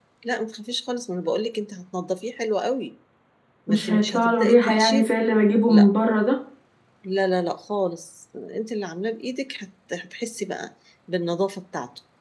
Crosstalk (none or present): present